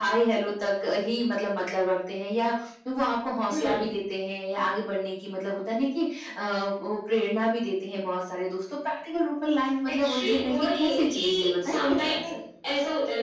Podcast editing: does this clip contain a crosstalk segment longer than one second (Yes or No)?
Yes